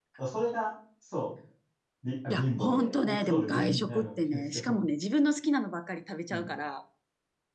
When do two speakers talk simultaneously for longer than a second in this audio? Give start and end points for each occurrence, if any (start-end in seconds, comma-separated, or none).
2.3-4.8